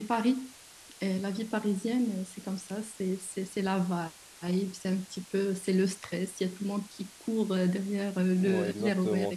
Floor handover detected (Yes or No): Yes